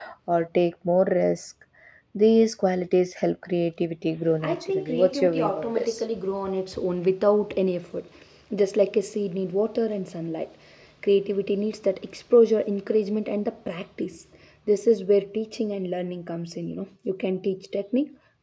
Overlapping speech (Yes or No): Yes